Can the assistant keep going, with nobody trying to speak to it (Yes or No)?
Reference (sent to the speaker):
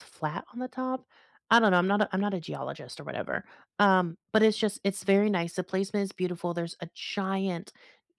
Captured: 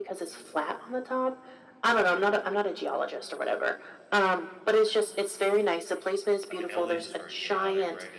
No